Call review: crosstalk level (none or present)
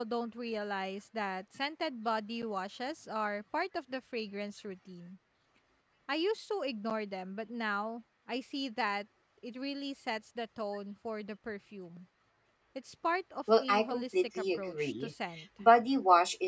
present